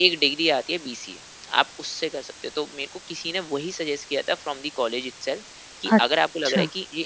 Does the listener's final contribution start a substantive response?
No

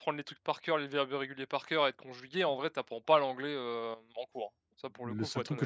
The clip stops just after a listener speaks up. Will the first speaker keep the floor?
No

